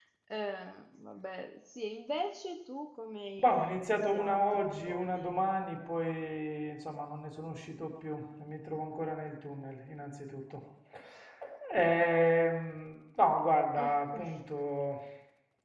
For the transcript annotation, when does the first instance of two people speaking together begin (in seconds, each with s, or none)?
3.4 s